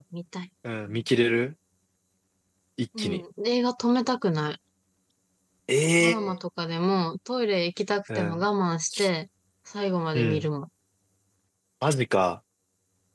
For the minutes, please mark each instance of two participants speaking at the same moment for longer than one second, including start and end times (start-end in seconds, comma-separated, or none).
none